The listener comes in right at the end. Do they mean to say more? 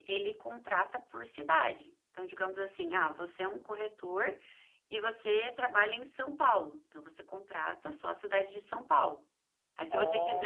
No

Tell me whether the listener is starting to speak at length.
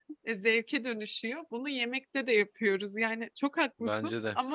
No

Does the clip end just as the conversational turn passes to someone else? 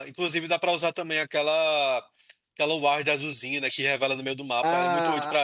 Yes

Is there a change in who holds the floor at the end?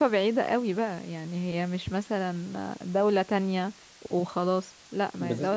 No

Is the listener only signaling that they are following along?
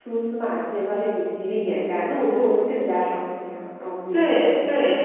No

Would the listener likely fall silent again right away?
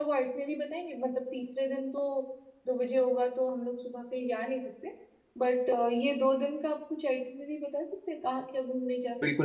No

